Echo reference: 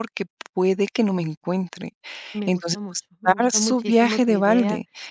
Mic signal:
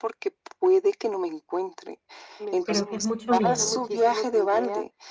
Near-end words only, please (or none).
Creo que es mucho miedo.